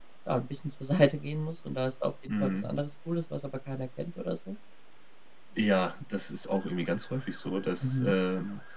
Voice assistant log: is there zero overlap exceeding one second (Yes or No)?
Yes